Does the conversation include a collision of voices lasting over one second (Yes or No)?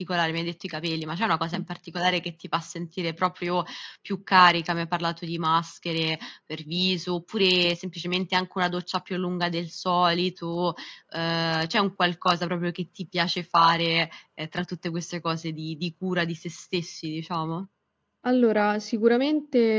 No